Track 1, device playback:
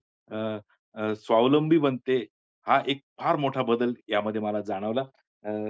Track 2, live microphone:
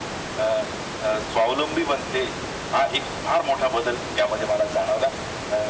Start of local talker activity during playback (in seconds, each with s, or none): none